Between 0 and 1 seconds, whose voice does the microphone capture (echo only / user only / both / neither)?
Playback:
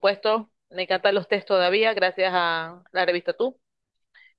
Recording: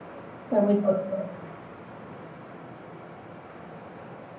user only